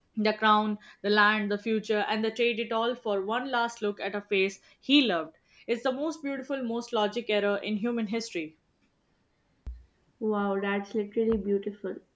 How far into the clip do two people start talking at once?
none

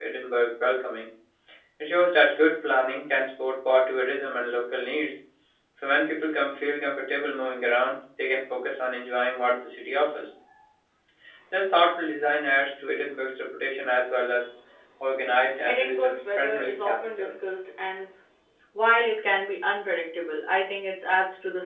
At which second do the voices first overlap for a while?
16 s

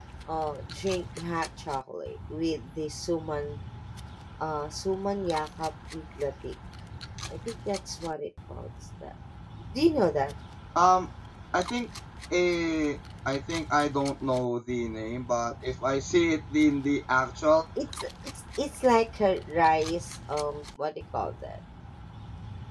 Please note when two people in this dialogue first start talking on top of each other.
none

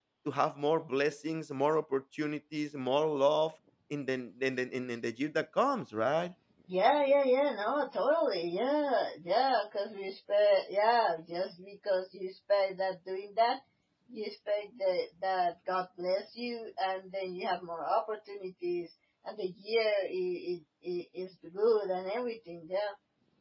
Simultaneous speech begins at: none

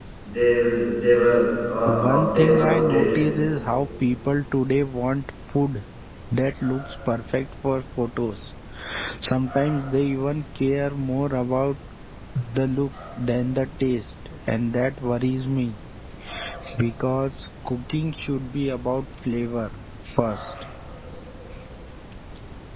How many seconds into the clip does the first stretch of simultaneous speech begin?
2 s

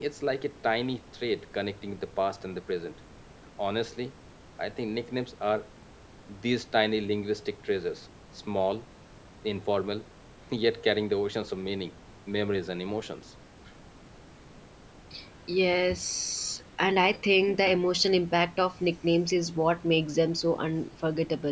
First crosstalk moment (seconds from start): none

